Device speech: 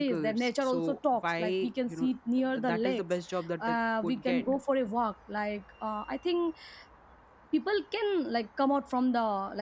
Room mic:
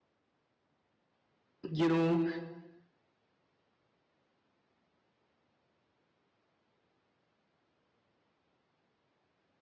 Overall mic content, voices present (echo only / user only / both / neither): user only